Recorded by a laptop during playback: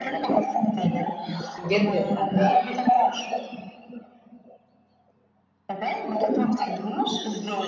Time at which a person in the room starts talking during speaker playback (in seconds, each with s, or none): 1.6 s